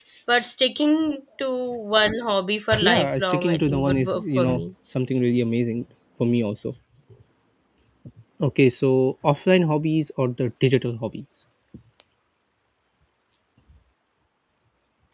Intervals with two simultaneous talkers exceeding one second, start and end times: 2.8-4.6

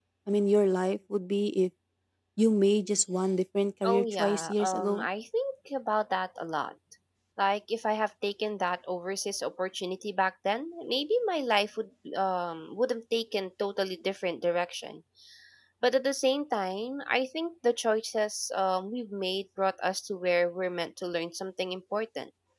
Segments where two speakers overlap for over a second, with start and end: 3.8-5.0

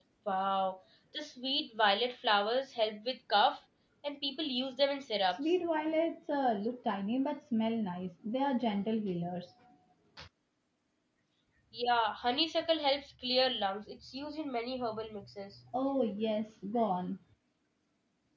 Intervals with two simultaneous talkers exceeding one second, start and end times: none

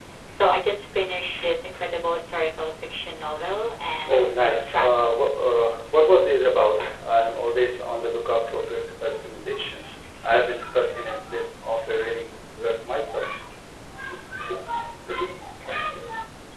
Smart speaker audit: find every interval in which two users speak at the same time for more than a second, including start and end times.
4.1-5.3

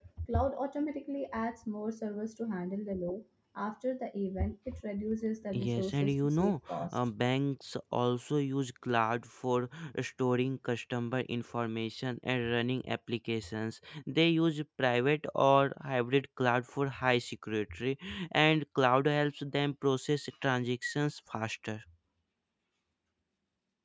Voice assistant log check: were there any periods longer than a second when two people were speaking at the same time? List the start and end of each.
5.5-7.0

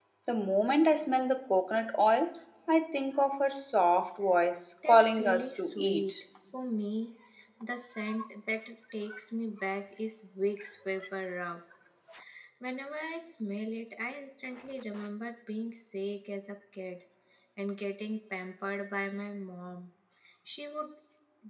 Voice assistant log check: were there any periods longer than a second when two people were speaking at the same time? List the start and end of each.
4.9-6.2

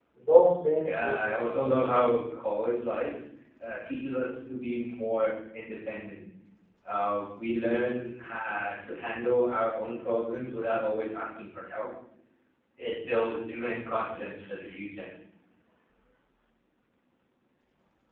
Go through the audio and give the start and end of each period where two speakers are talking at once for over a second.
0.8-2.1

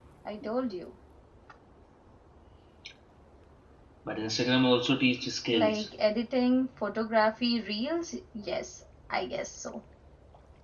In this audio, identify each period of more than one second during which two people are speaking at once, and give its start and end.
none

